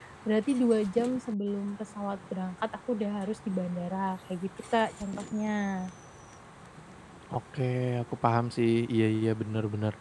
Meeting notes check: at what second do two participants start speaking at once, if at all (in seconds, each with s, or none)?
none